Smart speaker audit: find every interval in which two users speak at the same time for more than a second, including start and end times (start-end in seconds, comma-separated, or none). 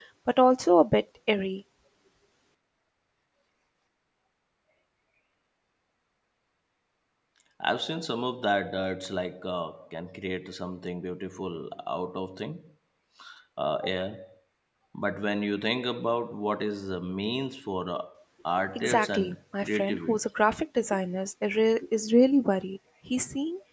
18.8-20.1